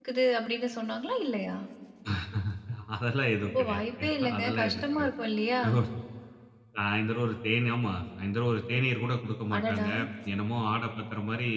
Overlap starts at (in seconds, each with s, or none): 3.6 s